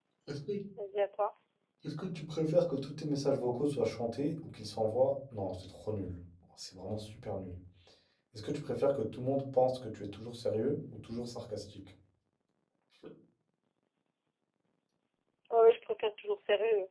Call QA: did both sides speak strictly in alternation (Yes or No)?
Yes